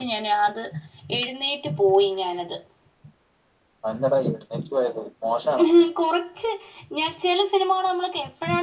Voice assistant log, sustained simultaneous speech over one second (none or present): none